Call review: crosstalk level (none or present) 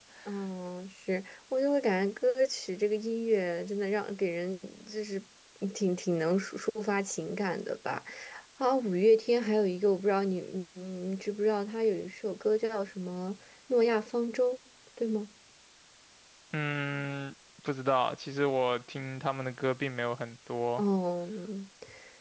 none